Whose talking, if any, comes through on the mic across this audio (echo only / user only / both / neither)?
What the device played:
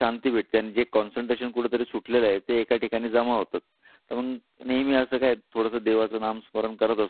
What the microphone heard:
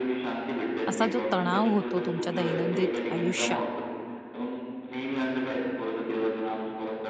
both